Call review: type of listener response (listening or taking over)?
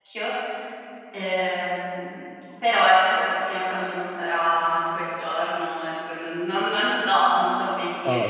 taking over